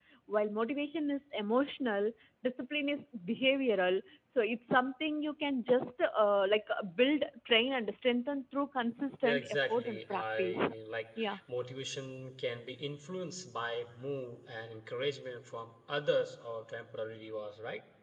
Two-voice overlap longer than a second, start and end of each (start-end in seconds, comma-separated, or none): 9.2-10.6